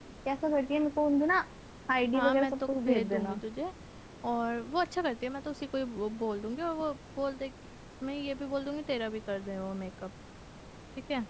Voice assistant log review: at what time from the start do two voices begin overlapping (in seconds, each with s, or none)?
2.1 s